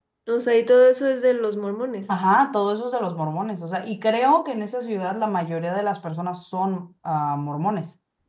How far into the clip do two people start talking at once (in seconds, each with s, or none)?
none